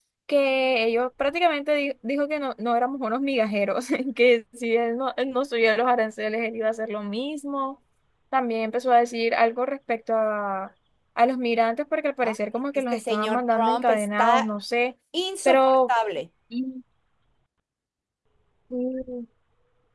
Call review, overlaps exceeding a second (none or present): present